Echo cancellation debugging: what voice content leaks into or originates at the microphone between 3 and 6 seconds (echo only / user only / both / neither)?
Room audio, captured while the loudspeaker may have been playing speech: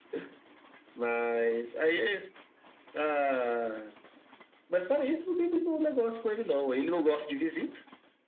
echo only